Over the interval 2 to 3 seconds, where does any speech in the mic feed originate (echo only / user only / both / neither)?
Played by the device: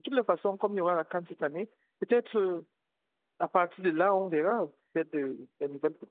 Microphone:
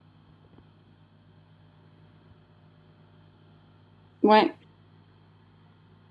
neither